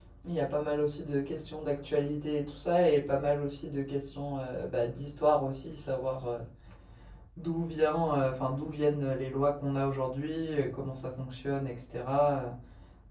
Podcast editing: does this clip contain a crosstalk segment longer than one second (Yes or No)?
No